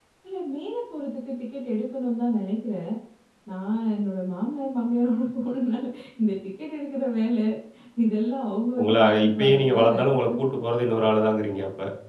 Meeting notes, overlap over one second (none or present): present